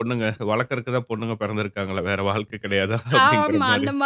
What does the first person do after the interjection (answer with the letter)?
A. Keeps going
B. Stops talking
B